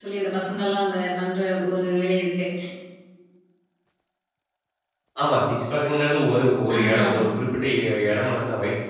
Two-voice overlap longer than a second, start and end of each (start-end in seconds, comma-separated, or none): none